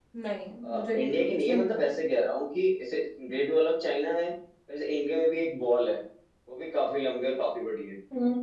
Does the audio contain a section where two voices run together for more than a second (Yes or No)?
Yes